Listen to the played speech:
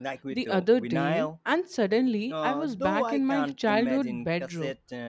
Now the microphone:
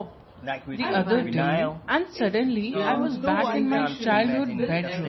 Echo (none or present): present